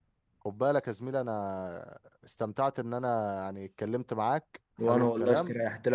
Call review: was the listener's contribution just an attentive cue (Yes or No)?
No